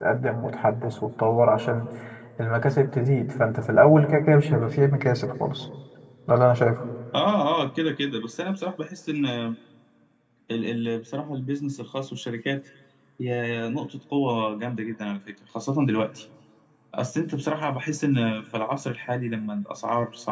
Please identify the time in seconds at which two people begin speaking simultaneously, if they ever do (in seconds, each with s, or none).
none